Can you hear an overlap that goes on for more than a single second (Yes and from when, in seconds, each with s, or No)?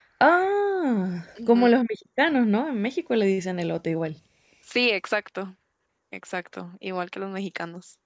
No